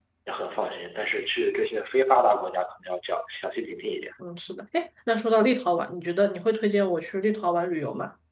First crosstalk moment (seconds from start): none

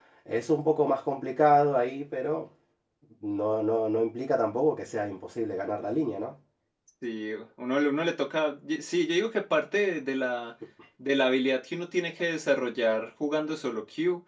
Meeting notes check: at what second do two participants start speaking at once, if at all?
none

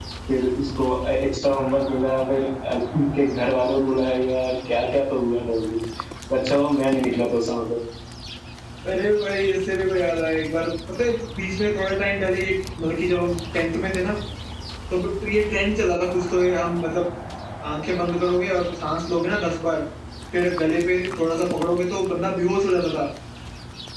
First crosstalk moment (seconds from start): none

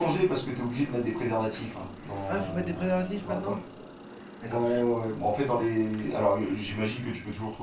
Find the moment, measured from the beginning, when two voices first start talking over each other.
2.3 s

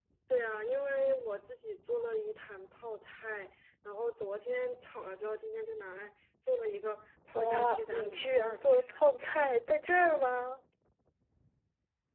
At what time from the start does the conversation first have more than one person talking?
7.3 s

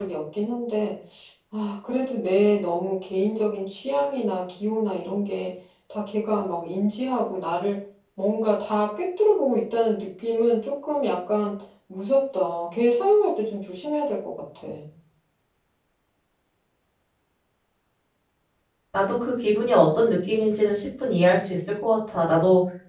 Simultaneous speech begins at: none

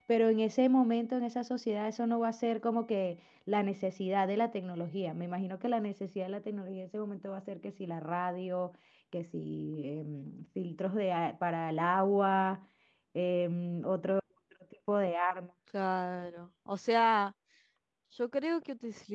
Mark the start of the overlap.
none

